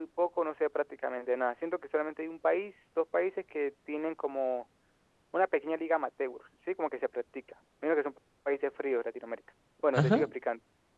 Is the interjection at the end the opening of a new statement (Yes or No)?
No